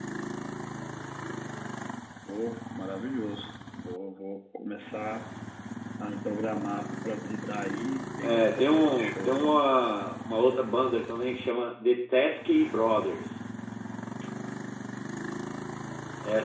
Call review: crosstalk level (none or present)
present